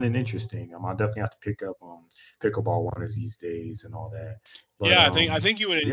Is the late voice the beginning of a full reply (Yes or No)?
Yes